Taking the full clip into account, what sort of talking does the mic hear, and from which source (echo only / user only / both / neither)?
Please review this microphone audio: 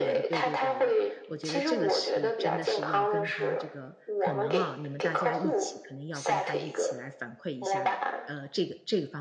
both